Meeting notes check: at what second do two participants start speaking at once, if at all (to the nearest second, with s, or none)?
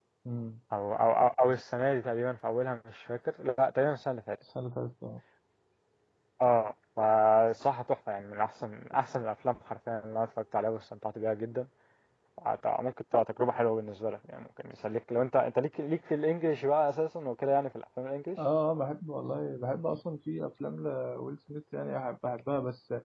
none